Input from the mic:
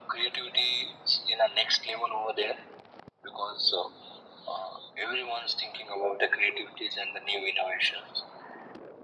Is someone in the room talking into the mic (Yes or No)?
No